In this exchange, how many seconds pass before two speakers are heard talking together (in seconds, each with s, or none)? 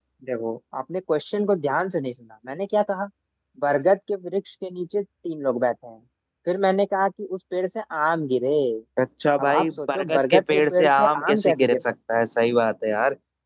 9.4 s